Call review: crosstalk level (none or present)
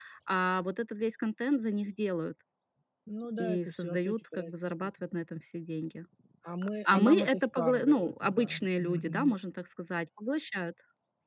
present